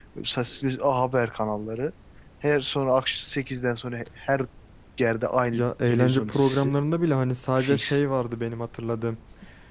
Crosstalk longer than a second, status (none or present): present